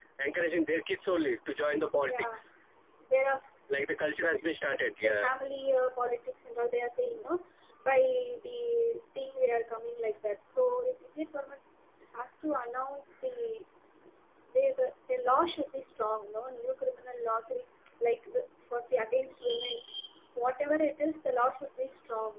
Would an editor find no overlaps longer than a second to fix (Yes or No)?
Yes